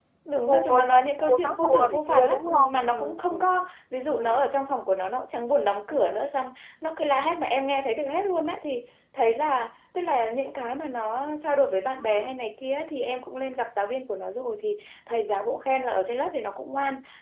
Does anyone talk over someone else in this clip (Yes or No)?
Yes